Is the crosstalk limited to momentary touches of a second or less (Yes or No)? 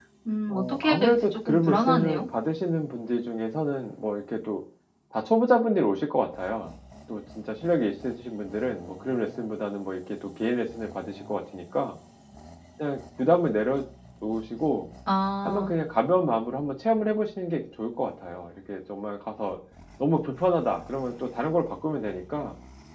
No